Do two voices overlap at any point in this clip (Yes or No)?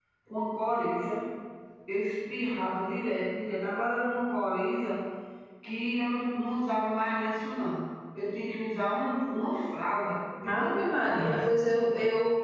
Yes